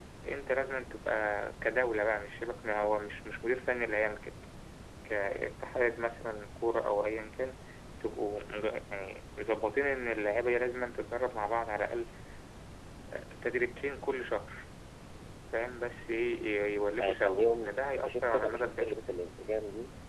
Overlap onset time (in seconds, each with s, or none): 17.0 s